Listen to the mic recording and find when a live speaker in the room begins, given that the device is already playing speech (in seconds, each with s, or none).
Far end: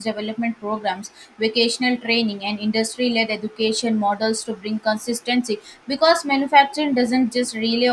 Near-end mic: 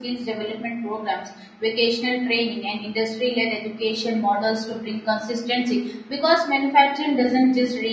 none